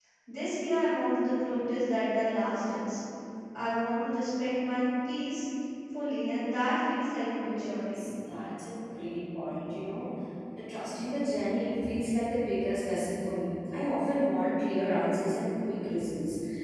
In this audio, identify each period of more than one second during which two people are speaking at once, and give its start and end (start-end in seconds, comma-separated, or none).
none